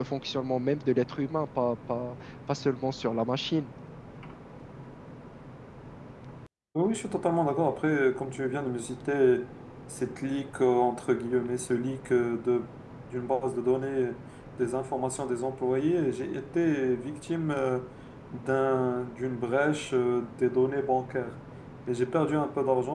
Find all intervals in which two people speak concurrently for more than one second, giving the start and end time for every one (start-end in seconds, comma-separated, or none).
none